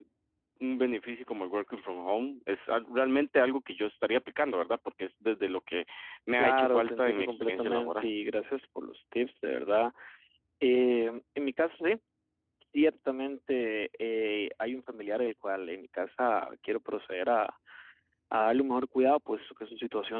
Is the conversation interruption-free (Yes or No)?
No